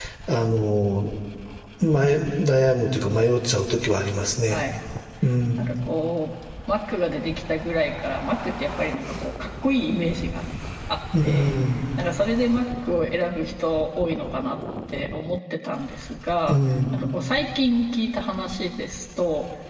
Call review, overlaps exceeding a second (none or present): none